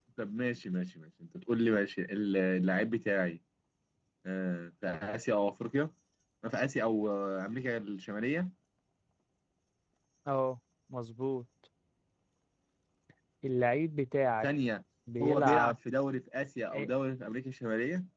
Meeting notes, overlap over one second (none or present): none